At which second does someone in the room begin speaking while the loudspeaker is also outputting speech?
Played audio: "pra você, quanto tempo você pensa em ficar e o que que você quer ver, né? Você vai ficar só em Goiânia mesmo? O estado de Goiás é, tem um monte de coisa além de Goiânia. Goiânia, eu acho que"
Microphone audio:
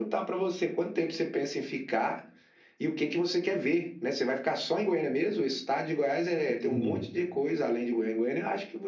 6.5 s

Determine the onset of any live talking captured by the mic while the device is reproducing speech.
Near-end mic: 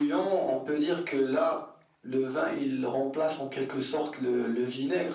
none

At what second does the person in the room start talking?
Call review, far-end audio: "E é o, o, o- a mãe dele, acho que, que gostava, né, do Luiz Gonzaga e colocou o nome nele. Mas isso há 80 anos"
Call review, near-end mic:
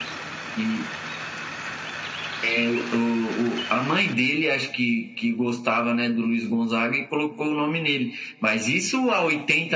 none

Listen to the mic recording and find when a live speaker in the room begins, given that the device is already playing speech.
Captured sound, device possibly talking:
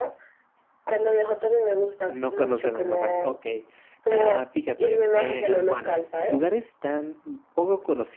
2.0 s

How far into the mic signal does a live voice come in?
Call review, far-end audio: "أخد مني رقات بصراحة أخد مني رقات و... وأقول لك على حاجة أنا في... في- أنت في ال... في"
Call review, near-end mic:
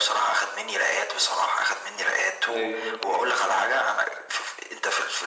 2.5 s

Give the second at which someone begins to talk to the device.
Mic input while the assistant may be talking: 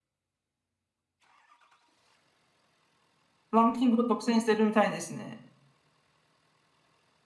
3.5 s

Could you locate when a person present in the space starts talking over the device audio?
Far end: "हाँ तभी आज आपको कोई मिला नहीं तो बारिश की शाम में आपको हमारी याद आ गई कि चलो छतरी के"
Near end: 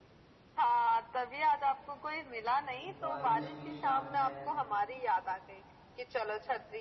2.6 s

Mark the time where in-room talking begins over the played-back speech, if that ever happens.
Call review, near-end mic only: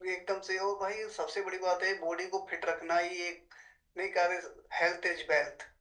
none

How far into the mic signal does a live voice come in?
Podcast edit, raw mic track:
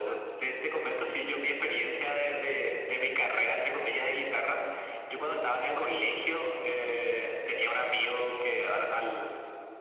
none

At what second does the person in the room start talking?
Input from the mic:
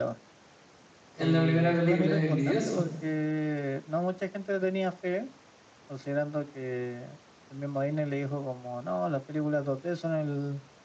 1.1 s

